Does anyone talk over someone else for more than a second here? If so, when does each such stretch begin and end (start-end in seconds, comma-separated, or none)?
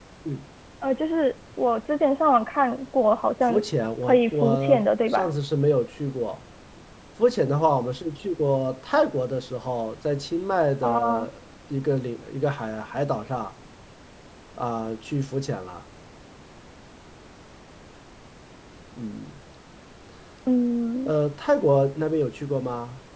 4.1-5.3